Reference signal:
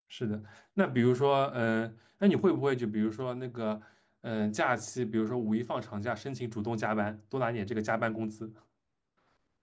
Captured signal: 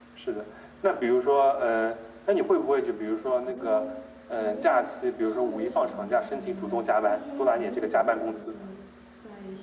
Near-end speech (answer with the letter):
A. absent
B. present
B